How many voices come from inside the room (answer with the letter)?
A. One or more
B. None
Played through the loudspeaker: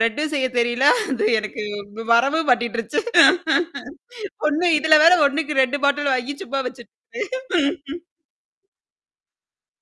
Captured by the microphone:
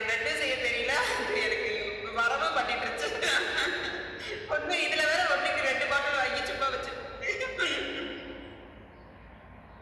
B